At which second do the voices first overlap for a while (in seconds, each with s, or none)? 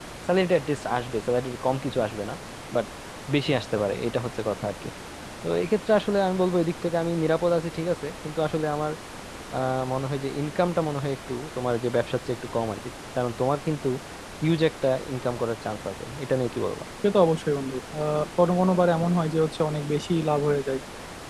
none